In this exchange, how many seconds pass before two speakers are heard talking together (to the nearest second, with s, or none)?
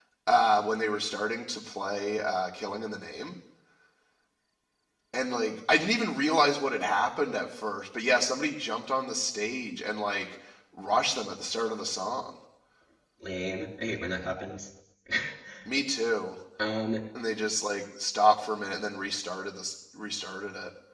none